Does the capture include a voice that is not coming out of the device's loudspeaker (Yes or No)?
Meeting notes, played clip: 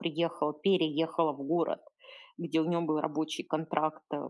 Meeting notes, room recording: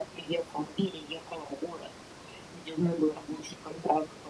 No